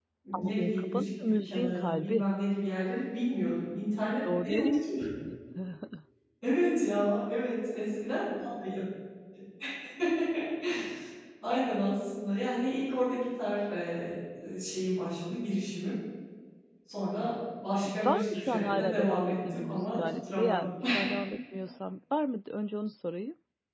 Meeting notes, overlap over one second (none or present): present